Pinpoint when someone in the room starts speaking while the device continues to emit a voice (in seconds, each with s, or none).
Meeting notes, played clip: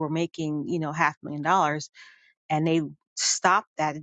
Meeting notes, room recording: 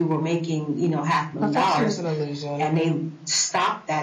1.4 s